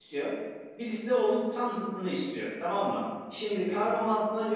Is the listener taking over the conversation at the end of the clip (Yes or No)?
No